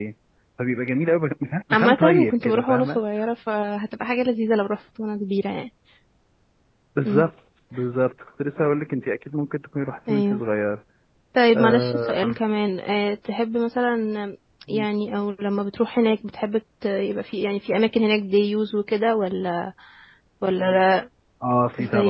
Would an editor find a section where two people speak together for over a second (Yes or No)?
Yes